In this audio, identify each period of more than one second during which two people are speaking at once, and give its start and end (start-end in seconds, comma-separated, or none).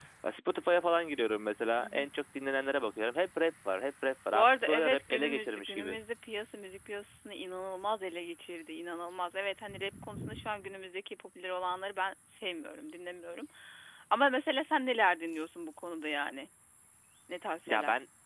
4.3-6.0